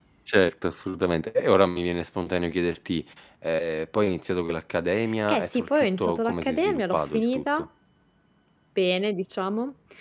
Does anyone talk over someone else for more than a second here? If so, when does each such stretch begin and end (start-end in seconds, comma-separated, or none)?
5.3-7.6